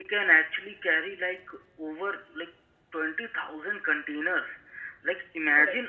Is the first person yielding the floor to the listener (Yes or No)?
No